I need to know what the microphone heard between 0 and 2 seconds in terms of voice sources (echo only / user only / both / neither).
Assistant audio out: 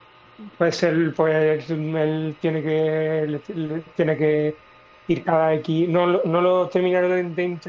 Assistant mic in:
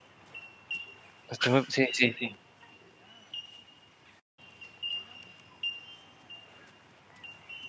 user only